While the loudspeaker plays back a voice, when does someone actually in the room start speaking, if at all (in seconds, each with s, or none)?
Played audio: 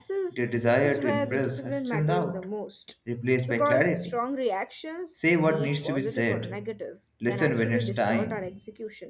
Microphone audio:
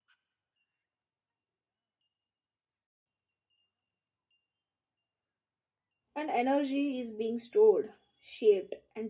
6.1 s